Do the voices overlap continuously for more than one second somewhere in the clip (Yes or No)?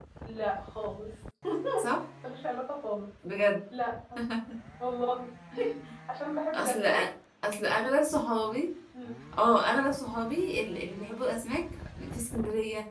No